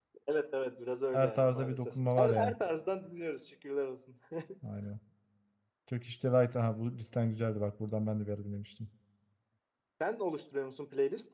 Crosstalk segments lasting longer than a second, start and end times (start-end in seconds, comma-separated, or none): 1.1-2.5